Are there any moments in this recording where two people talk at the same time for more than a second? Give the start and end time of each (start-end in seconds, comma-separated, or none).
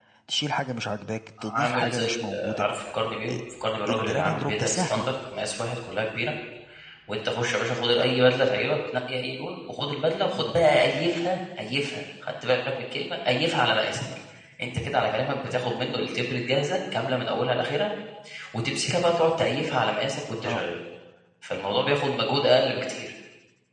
1.4-2.7, 3.9-5.1